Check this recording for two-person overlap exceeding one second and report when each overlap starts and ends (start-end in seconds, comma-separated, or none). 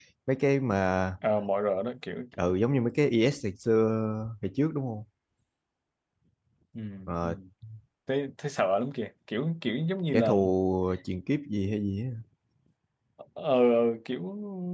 none